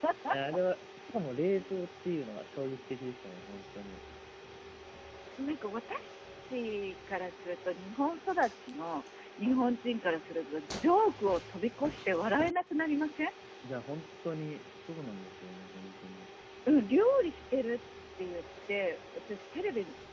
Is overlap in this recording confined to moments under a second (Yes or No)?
Yes